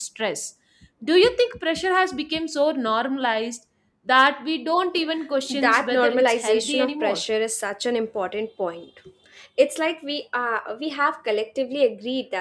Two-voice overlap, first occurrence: 5.5 s

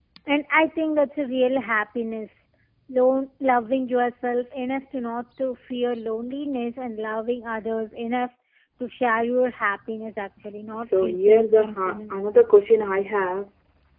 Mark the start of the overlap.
10.7 s

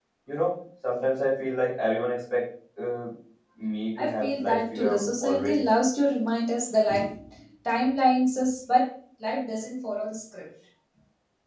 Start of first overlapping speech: 4.0 s

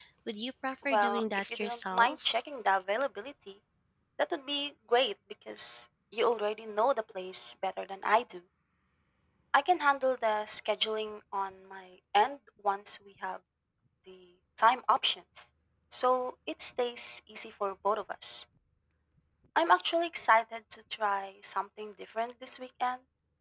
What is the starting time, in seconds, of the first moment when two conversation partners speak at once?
0.9 s

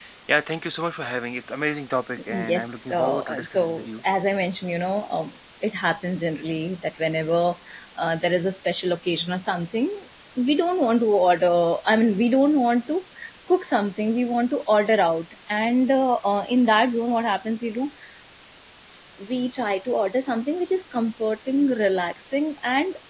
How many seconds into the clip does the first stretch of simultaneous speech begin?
2.3 s

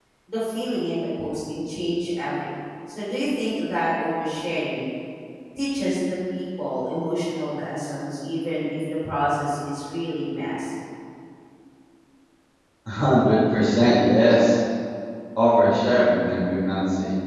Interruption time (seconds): none

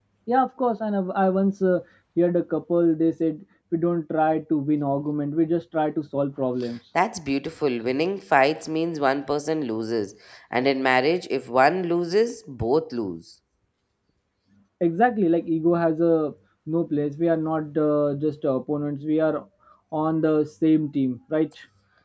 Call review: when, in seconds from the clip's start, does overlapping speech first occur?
none

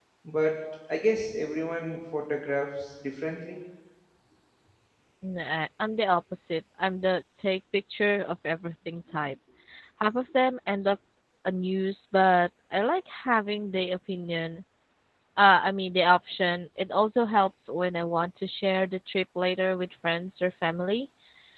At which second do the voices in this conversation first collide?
none

